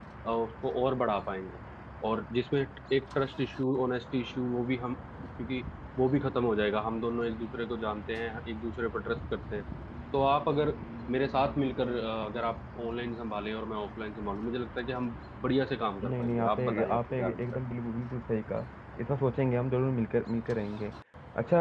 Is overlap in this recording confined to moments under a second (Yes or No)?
No